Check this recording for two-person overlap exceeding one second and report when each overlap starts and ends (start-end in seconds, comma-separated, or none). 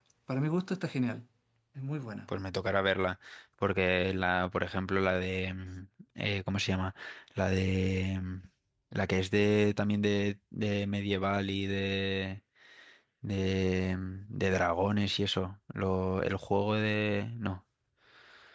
none